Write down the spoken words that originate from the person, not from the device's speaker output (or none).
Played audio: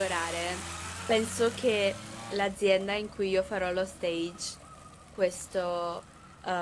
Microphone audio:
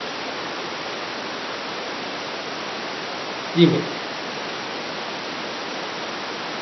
dimmi,